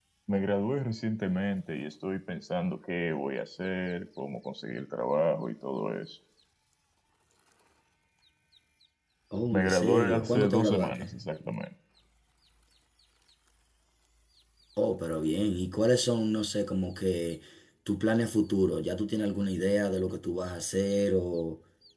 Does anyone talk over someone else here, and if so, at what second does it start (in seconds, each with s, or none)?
9.5 s